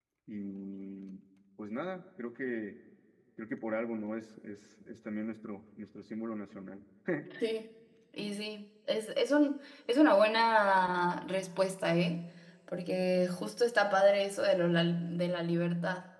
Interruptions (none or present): none